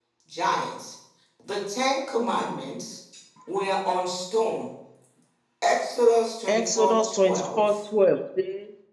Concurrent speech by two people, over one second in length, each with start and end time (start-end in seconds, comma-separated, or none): 6.5-7.7